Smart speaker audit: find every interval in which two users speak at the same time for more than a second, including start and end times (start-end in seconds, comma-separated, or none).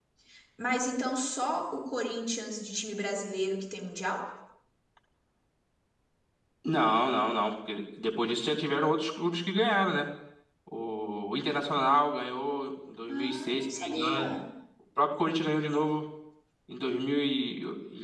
13.1-14.3